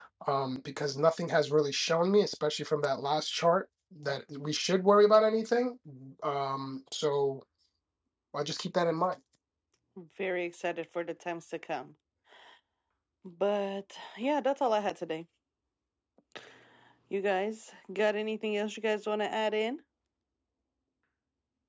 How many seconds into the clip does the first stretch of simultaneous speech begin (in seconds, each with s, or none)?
none